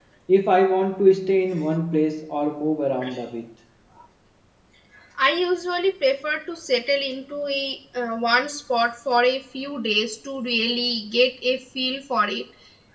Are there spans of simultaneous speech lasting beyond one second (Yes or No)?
No